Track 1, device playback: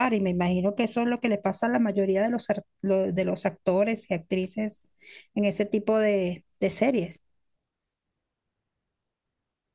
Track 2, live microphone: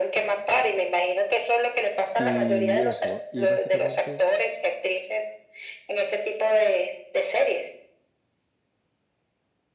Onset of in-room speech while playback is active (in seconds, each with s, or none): 2.2 s